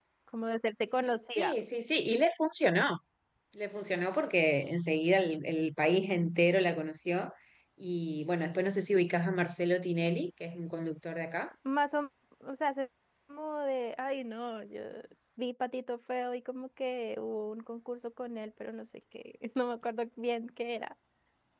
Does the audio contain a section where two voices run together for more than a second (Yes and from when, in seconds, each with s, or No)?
No